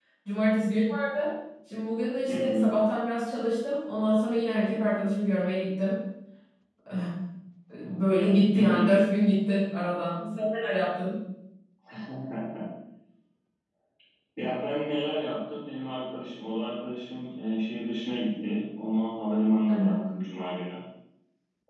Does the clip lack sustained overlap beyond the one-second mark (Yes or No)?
Yes